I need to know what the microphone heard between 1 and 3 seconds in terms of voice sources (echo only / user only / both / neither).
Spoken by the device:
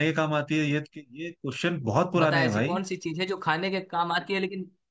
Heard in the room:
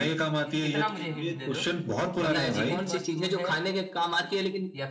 both